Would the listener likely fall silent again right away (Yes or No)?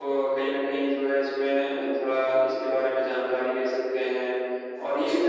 Yes